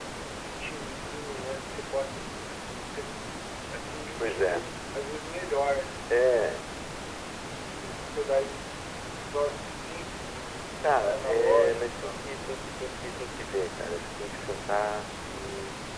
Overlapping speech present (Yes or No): Yes